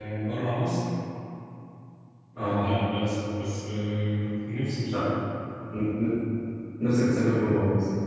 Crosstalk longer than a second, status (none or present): none